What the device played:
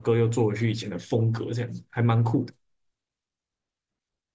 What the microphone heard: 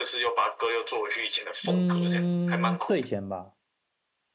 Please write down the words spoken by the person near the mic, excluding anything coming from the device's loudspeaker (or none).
嗯，睡前吧，